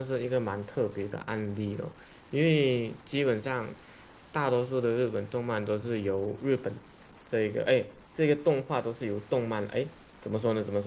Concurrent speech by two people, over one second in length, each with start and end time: none

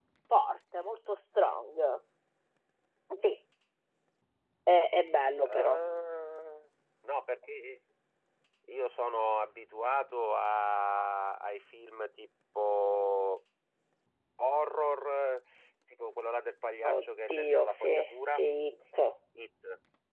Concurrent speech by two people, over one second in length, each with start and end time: 16.8-18.4

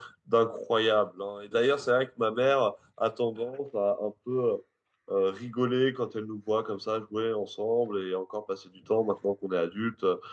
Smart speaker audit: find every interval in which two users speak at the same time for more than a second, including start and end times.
none

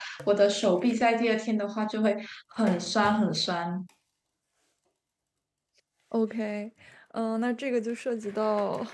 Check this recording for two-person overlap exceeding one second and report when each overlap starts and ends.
none

